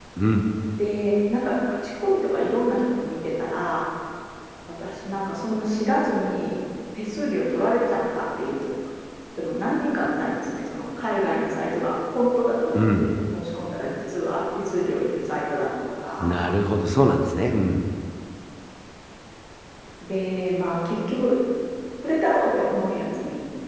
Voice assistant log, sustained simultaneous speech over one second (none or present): none